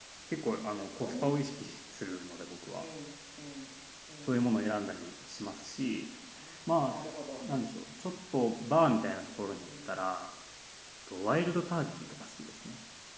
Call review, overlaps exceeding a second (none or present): none